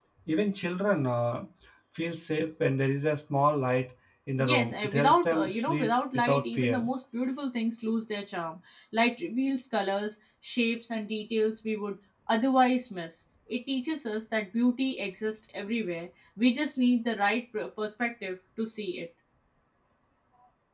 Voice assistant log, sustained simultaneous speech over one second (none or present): present